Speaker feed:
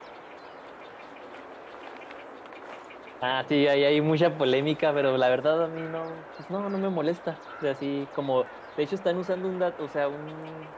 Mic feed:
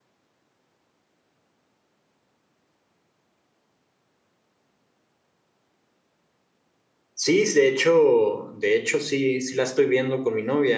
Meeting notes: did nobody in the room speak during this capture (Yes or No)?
No